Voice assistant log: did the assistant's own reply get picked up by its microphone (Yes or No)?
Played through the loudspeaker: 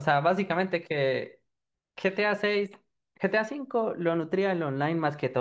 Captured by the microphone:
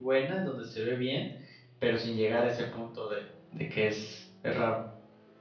No